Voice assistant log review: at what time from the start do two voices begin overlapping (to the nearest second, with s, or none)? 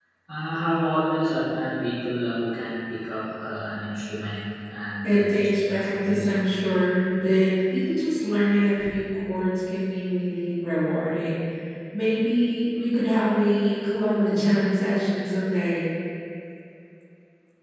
5 s